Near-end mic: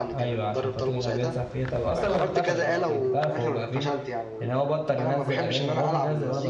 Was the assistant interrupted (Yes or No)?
Yes